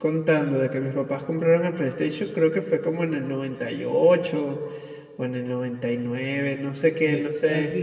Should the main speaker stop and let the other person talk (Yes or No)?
Yes